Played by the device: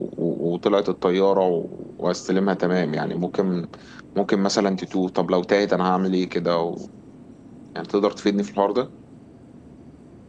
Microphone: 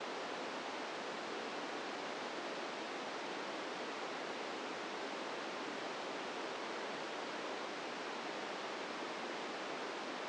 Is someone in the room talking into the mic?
No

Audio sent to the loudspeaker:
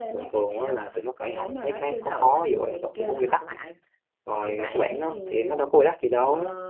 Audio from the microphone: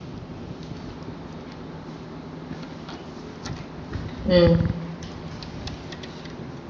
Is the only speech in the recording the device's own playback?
No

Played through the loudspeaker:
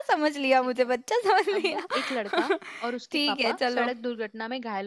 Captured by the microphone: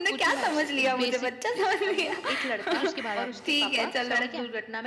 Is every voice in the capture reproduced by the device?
No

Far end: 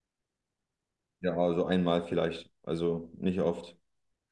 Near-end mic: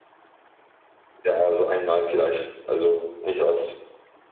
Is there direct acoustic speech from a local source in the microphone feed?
No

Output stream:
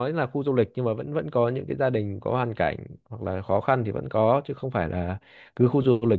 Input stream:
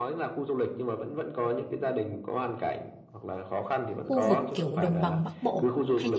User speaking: Yes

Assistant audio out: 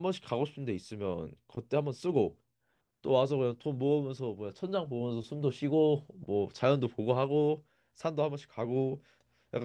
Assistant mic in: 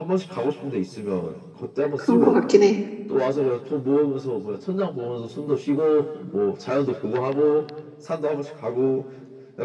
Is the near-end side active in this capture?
Yes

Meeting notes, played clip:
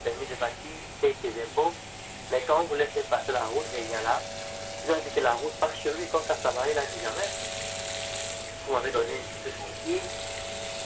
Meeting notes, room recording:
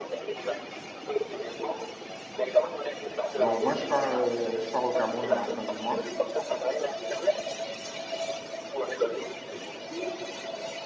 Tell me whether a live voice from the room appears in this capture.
Yes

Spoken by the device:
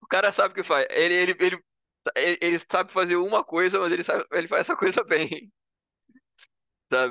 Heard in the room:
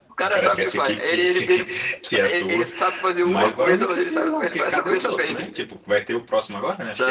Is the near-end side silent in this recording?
No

